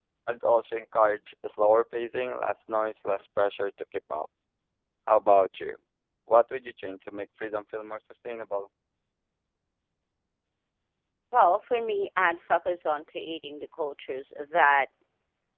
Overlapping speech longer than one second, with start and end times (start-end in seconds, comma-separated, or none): none